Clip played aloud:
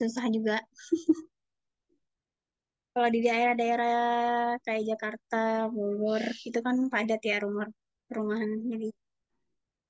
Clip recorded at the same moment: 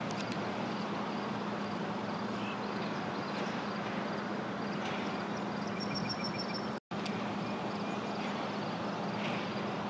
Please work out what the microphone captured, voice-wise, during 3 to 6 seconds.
neither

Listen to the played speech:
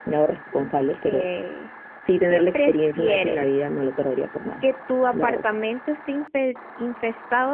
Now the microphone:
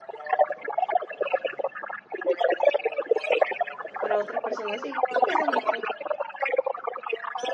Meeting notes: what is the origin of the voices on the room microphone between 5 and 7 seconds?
both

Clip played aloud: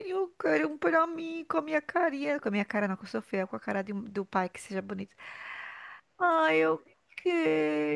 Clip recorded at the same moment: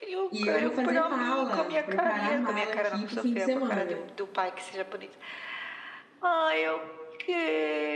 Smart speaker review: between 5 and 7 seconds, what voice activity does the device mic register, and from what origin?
echo only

